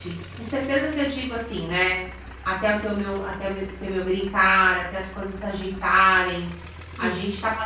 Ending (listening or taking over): listening